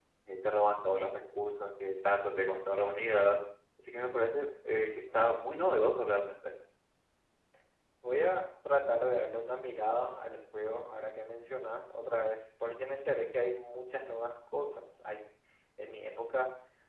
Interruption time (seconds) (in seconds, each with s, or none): none